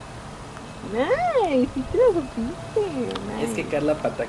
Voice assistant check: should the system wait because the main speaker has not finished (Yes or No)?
No